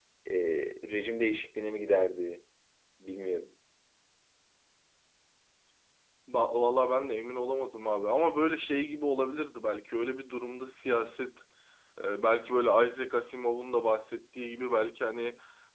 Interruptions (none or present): none